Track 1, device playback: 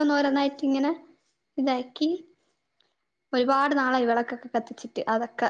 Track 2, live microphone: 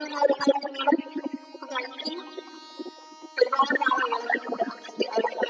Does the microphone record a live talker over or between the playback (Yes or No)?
No